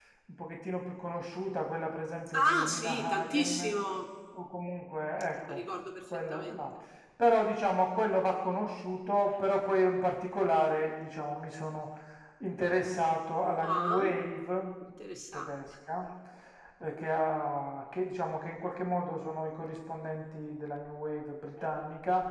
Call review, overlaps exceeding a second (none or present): present